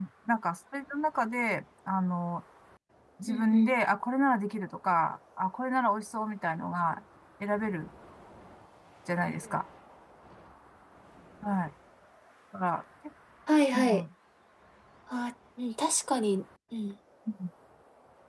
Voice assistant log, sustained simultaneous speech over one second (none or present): none